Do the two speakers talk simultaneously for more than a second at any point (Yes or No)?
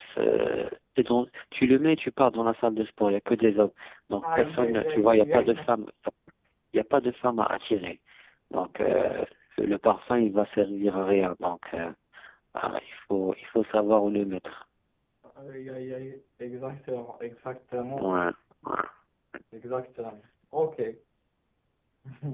Yes